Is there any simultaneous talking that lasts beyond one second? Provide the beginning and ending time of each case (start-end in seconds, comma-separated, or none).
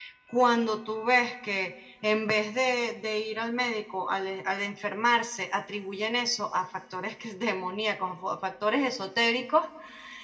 none